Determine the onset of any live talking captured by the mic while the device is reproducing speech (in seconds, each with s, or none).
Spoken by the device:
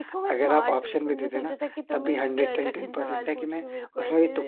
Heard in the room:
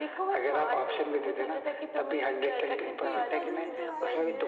2.7 s